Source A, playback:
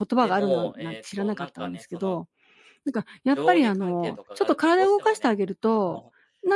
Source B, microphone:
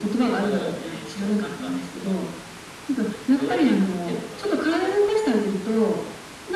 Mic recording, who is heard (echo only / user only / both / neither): echo only